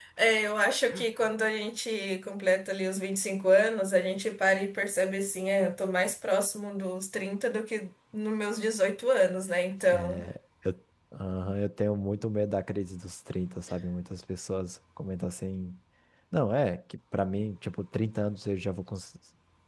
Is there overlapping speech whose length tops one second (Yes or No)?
No